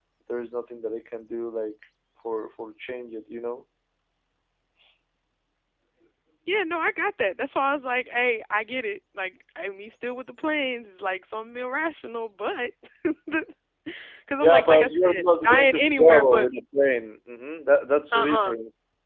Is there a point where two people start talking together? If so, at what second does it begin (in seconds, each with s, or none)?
14.4 s